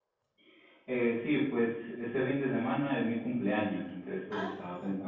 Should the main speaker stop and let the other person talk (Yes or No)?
No